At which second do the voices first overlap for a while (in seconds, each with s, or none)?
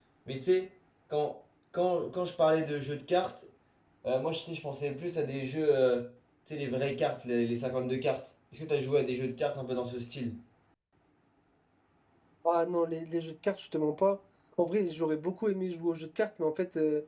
none